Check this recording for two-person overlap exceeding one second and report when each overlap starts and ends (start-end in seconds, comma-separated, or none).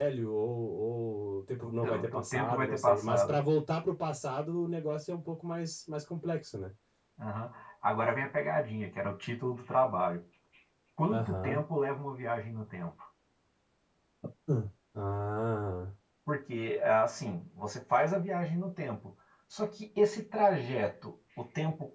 1.8-3.4